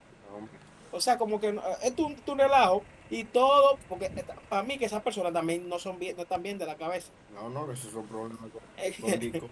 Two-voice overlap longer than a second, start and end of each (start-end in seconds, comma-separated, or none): none